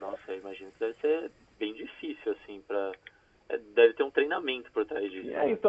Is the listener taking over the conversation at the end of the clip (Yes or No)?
Yes